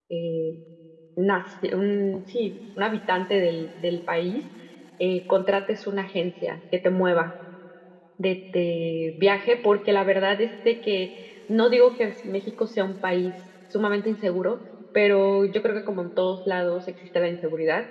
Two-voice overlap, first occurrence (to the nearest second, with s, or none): none